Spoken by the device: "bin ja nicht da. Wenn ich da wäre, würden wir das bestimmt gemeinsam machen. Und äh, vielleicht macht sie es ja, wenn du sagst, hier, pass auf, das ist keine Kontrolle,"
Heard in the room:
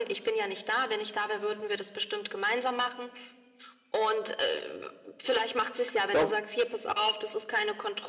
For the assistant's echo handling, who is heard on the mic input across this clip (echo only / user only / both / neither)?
both